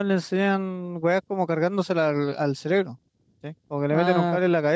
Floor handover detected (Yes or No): No